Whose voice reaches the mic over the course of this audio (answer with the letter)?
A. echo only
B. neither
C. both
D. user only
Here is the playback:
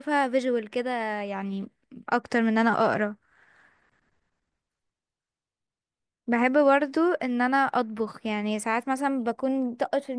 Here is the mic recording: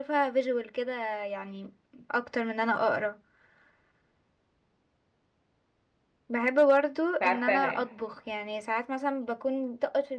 C